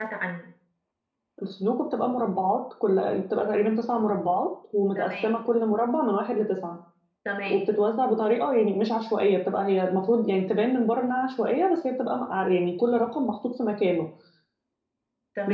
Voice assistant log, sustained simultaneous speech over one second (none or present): none